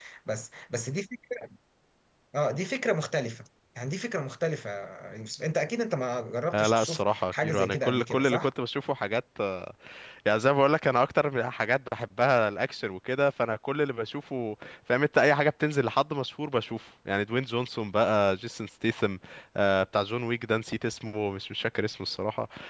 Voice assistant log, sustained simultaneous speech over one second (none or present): present